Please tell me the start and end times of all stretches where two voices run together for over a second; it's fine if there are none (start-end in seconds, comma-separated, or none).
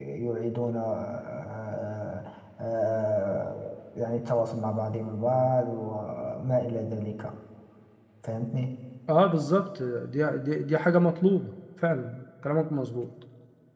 none